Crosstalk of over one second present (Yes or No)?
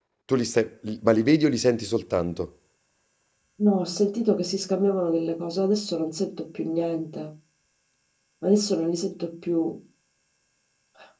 No